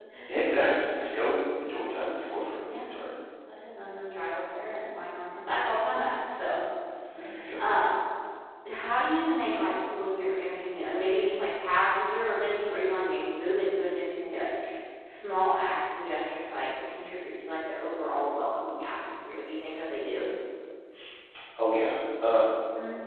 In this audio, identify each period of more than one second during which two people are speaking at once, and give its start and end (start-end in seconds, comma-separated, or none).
none